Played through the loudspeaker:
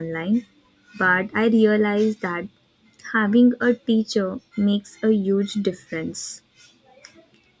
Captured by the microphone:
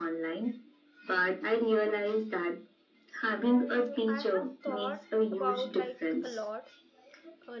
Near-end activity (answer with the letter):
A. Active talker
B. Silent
A